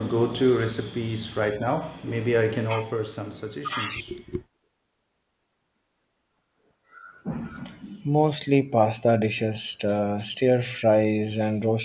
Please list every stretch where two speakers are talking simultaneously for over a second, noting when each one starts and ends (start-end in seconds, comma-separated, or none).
none